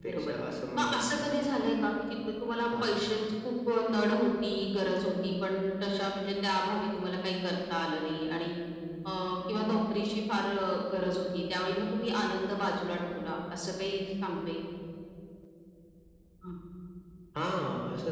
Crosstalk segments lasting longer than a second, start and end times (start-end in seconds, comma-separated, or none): none